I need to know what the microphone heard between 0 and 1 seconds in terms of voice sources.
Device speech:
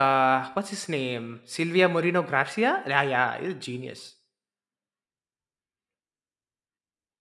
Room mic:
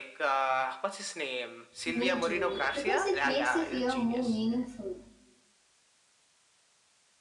echo only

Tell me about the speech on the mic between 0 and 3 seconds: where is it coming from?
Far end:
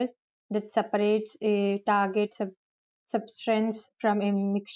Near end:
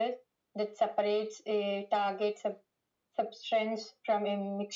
echo only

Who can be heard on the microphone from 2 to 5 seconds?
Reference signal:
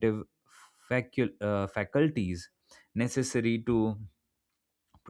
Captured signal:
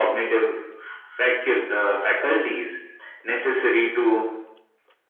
echo only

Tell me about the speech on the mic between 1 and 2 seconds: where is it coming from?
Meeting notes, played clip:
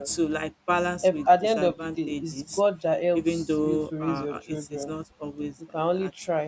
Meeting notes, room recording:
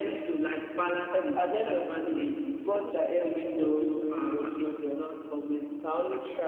echo only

